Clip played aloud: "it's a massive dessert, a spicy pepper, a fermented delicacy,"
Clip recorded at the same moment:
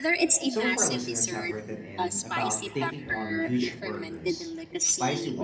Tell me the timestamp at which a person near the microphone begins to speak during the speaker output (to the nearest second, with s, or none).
0 s